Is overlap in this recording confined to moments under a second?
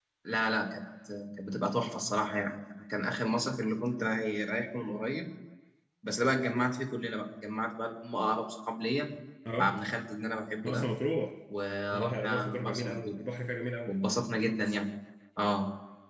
No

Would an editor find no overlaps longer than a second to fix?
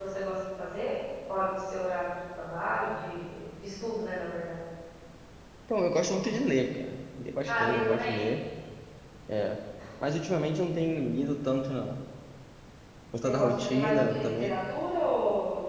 No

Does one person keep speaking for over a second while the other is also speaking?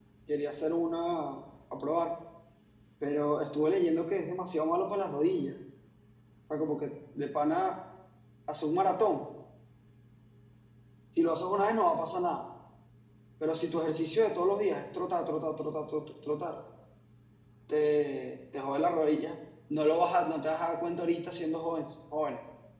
No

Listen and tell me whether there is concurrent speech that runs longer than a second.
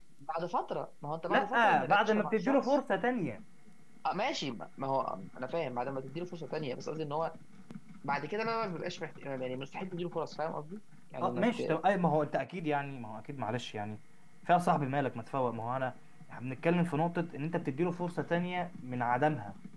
Yes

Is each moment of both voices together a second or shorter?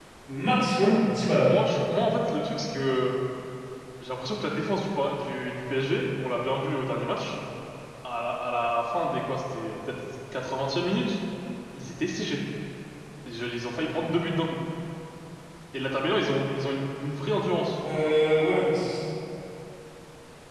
Yes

